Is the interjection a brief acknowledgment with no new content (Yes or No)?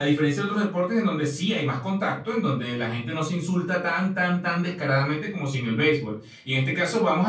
Yes